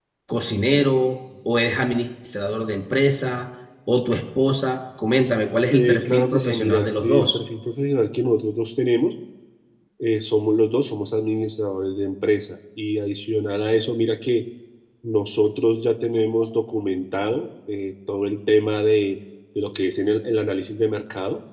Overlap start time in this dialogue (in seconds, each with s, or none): 5.7 s